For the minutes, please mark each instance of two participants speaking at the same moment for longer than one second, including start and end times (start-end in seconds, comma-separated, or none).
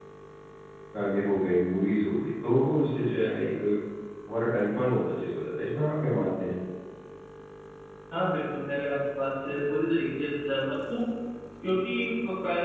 none